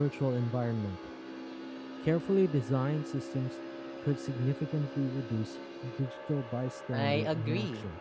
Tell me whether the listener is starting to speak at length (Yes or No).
Yes